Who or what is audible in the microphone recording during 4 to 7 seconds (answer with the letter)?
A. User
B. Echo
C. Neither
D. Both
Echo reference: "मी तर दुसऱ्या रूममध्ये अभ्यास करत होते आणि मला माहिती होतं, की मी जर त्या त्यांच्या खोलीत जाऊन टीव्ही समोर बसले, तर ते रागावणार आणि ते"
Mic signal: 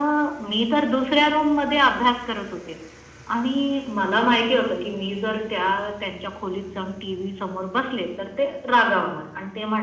B